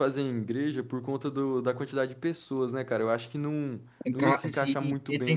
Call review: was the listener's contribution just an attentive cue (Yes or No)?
No